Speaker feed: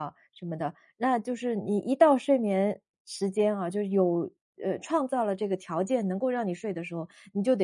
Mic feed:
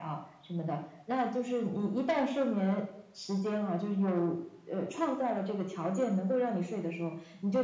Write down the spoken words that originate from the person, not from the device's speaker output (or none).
none